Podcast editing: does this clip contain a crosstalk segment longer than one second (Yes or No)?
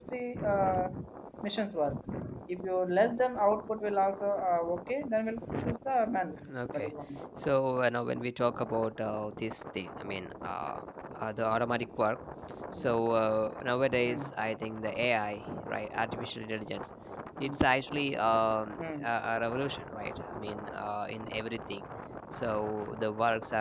No